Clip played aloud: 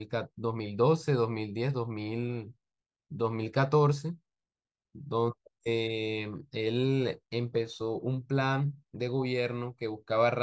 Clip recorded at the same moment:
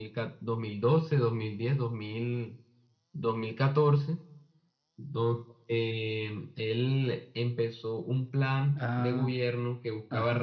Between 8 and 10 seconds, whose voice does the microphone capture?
both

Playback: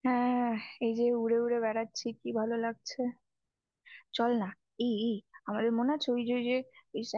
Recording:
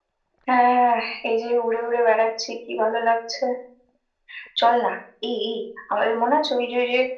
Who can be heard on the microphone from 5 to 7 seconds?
echo only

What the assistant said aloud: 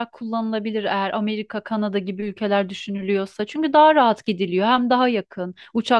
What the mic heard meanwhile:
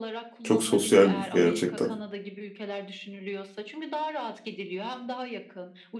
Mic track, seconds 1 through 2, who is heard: both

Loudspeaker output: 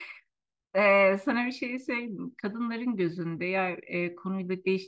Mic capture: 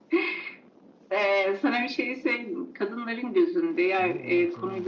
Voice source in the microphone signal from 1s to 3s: echo only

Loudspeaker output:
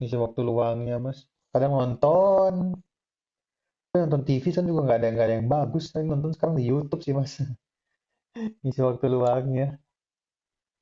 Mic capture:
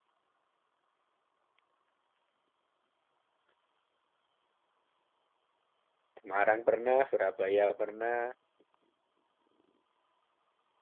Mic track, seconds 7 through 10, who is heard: user only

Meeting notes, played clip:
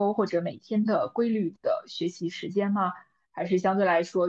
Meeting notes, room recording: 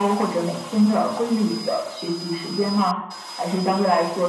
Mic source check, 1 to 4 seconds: echo only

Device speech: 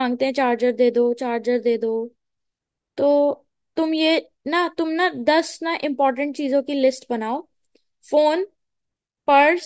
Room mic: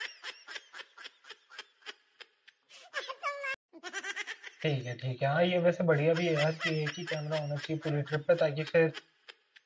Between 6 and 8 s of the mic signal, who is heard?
user only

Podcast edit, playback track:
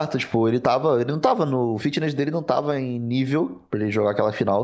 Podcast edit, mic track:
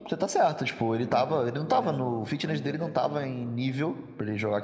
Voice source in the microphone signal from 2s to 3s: both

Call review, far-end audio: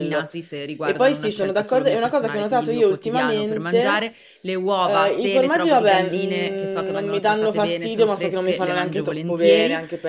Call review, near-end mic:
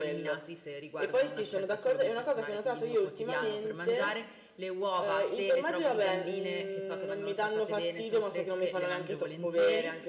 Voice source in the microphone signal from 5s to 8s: echo only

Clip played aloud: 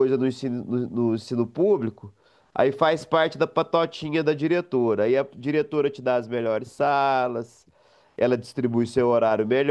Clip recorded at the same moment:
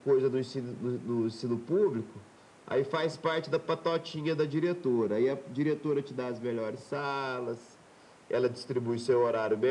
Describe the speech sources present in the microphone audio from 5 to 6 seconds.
echo only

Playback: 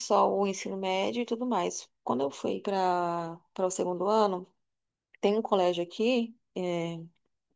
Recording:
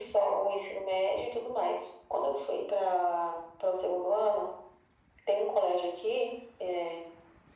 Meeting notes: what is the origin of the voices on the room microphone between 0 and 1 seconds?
echo only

